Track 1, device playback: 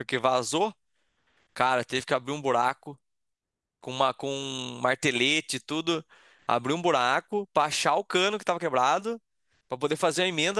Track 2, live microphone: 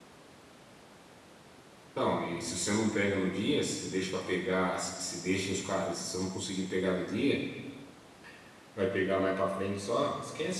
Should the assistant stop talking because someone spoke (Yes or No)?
Yes